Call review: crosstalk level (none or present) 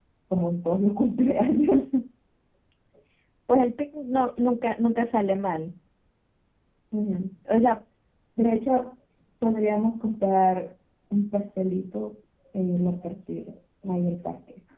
none